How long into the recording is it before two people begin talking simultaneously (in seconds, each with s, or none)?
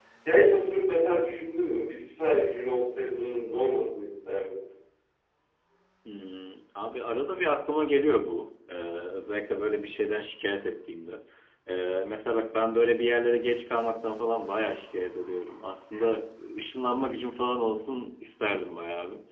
none